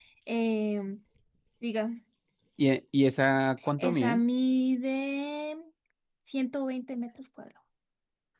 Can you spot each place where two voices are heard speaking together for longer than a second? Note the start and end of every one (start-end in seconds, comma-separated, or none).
none